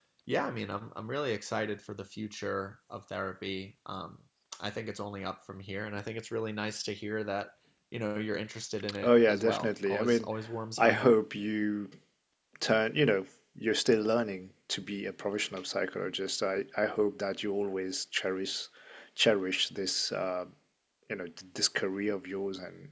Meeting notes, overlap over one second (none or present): present